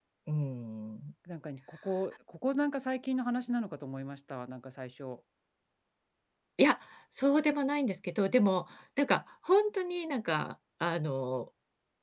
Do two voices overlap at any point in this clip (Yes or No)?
No